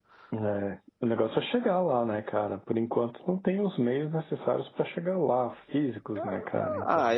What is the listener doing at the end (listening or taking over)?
taking over